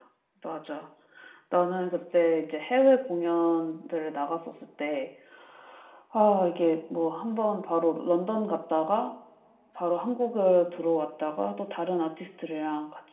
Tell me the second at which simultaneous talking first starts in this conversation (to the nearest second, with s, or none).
none